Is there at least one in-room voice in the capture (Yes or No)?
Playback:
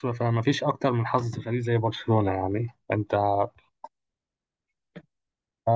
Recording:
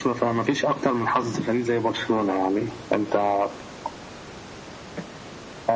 No